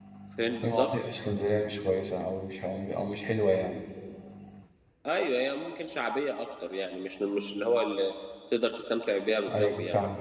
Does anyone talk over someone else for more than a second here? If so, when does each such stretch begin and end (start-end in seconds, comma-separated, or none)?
none